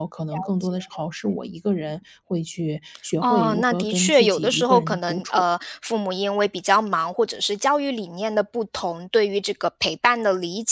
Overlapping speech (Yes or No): Yes